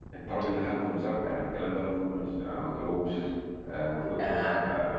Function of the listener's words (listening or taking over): listening